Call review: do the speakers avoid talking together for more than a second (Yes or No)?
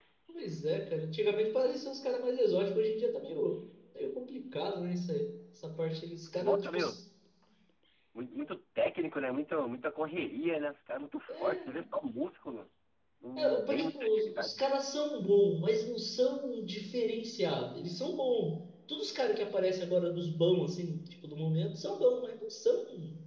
No